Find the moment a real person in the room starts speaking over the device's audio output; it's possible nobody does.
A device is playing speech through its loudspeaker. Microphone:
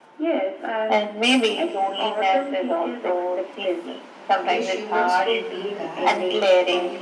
4.3 s

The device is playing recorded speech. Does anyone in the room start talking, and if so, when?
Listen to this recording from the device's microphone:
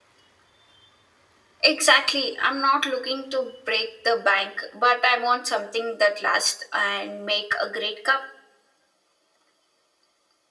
none

